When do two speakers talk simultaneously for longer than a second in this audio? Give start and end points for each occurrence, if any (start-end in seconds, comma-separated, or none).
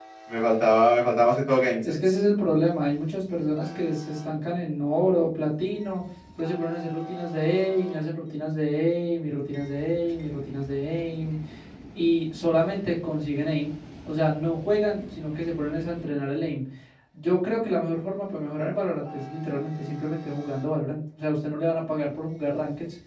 none